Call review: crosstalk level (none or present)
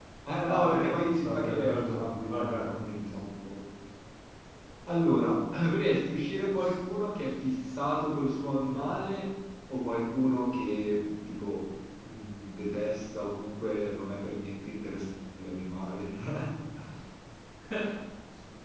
present